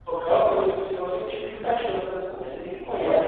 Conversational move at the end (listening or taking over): listening